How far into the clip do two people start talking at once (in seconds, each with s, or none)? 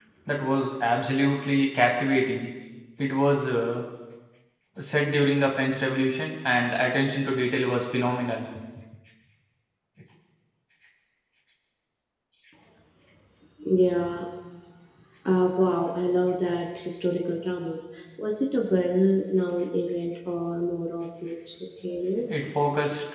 none